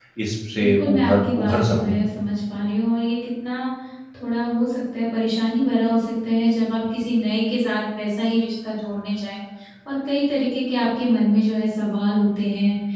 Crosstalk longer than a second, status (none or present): present